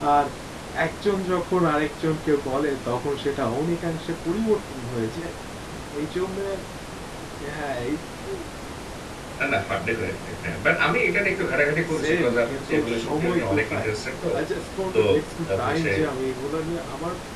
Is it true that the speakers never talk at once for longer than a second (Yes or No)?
No